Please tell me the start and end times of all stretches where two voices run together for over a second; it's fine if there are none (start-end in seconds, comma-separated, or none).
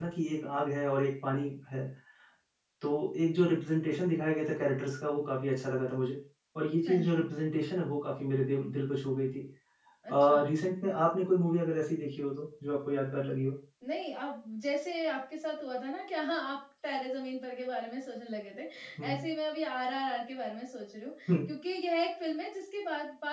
none